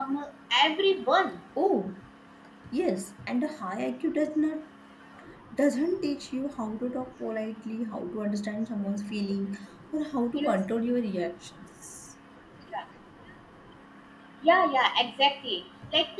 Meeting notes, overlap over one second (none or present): none